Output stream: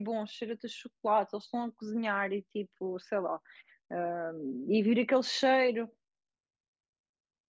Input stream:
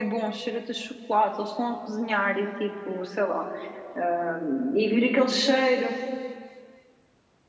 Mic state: echo only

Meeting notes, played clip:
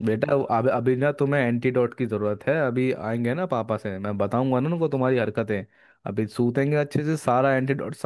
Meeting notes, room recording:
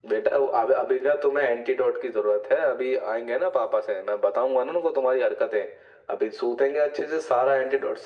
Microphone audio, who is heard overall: echo only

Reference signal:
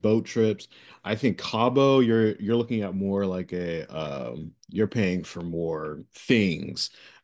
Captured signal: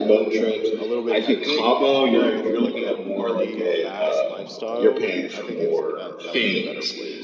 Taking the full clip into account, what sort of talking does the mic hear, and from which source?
both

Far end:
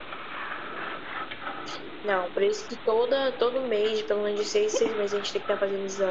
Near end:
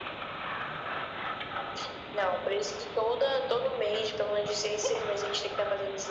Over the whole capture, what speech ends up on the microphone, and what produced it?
echo only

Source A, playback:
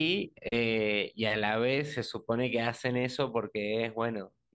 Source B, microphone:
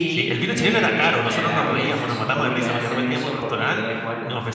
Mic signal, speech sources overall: both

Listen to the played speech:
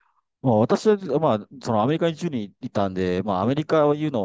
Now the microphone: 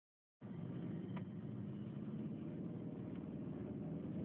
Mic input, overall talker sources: neither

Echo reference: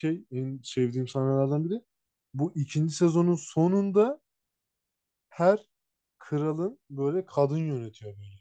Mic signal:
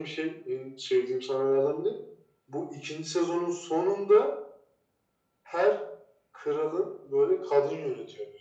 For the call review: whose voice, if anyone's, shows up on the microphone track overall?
echo only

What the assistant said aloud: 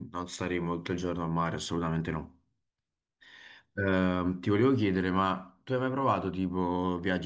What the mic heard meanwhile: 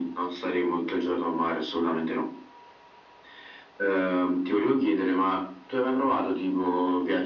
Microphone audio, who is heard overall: echo only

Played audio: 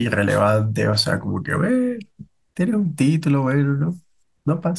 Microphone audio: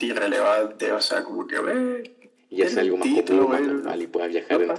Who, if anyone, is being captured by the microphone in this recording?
both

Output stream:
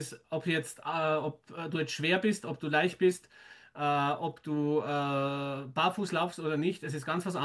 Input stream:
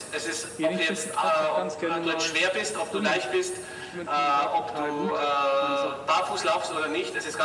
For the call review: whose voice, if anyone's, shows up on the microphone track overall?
both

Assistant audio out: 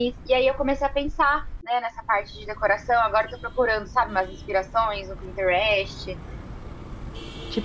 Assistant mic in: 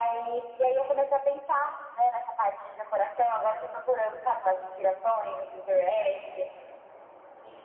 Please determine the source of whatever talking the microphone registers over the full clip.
echo only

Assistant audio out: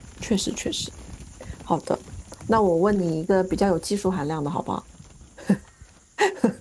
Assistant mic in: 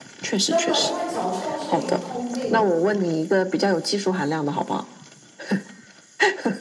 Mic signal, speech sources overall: both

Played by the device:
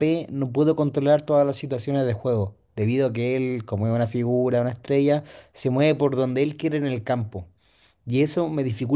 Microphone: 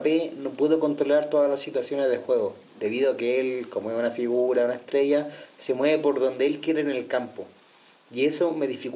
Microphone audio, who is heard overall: echo only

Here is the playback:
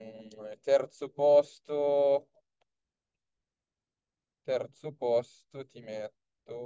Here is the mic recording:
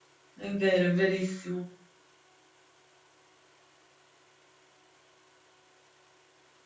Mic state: user only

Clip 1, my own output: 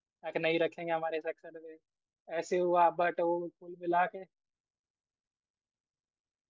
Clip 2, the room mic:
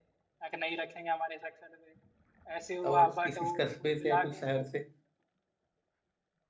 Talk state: both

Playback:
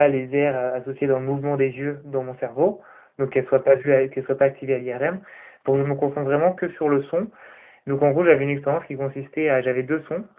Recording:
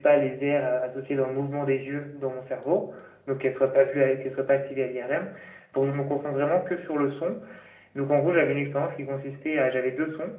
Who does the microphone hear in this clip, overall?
echo only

